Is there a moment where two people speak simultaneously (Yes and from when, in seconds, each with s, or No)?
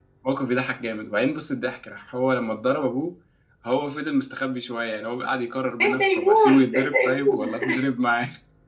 Yes, from 5.8 s